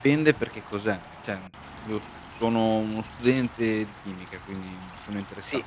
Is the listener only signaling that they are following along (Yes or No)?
Yes